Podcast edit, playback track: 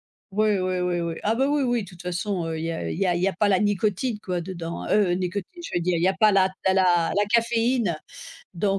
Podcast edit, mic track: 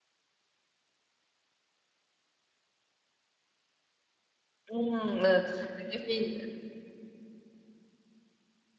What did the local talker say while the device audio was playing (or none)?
Mmh! Heu, la caféine!